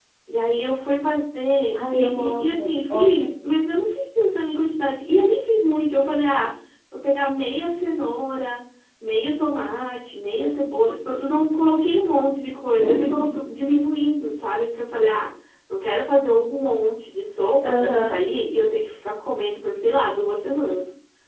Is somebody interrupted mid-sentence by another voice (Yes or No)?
Yes